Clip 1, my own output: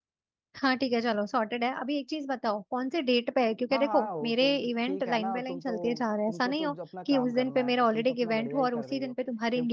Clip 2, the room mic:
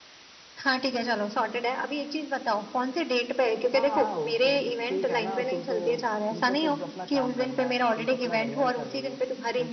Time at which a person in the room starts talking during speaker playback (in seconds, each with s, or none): none